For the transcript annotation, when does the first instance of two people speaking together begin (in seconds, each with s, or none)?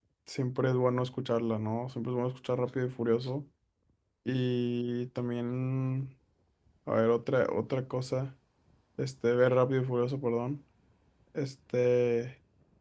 none